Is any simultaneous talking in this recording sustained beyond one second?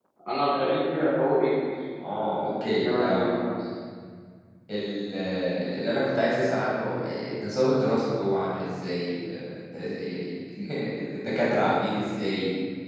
Yes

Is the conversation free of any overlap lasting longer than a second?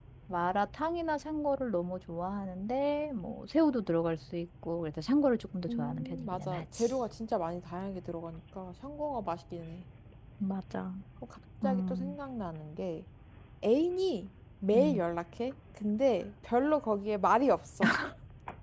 No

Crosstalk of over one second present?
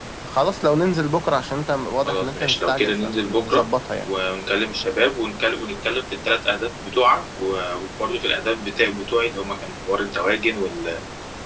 Yes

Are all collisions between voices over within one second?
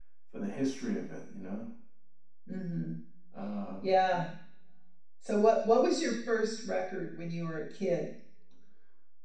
Yes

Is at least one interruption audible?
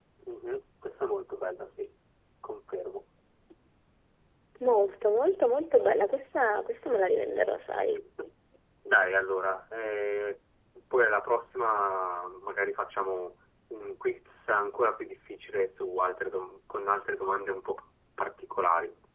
No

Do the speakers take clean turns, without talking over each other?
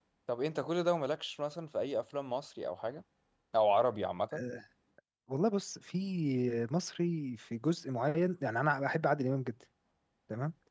Yes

